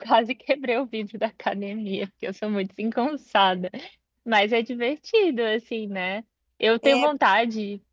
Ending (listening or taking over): listening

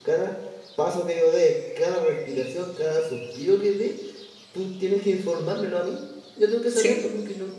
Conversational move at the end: listening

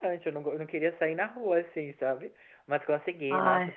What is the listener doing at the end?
listening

